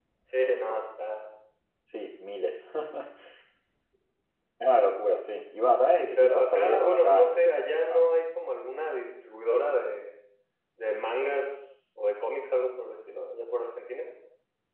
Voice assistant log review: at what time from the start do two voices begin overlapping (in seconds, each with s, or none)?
5.9 s